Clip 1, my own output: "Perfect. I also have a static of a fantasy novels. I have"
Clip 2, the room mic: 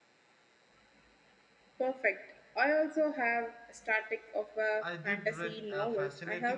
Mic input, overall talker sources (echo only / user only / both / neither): both